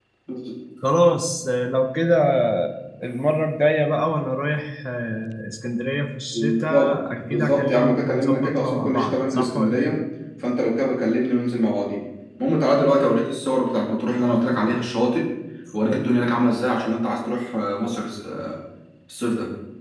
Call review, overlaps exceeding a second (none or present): present